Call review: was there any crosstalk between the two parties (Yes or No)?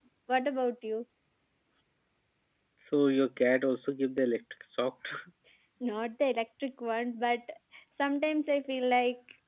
No